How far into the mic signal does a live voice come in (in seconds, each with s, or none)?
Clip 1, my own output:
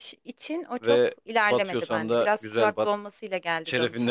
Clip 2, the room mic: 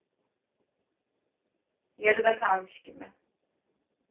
2.0 s